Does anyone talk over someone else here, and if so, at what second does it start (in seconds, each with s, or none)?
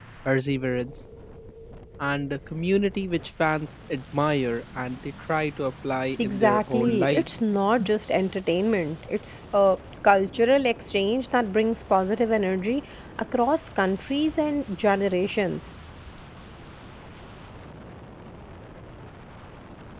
6.2 s